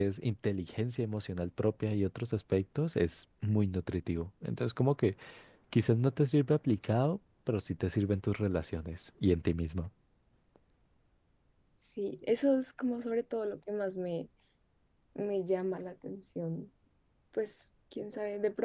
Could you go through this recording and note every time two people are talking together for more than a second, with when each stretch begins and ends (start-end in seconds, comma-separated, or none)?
none